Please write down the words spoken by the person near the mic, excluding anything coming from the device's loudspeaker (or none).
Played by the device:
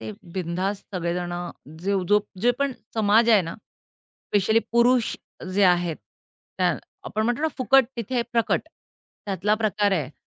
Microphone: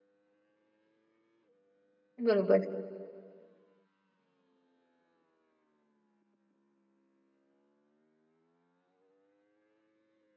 बरोबर.